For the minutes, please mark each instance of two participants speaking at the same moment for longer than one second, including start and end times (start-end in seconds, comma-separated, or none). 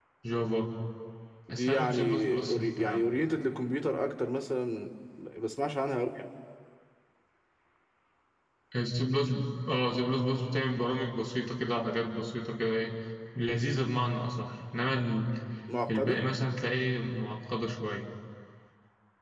1.5-3.1